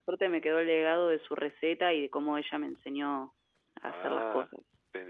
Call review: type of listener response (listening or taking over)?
taking over